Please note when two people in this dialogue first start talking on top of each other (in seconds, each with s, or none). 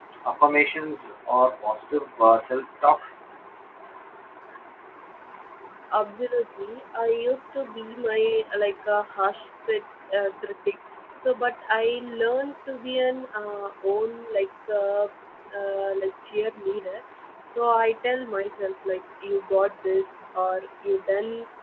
none